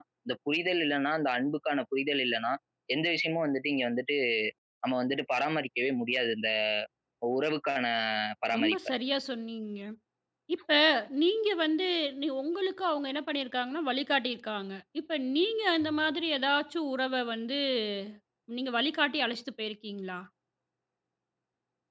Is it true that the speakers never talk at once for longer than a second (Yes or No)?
Yes